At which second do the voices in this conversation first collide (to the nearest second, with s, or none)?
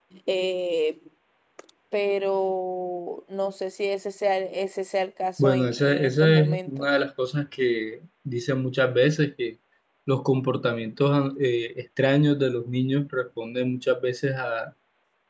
5 s